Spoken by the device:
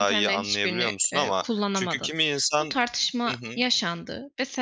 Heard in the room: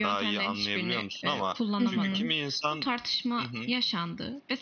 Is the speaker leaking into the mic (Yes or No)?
Yes